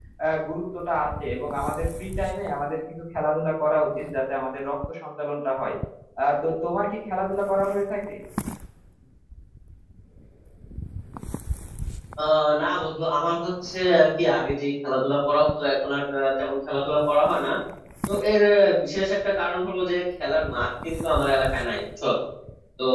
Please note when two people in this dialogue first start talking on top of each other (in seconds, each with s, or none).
none